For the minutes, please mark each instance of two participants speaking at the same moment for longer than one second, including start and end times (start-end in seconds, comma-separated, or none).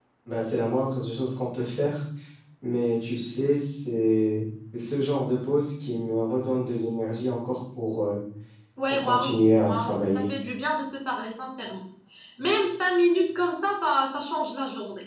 8.9-10.3